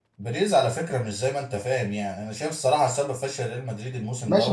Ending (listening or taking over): taking over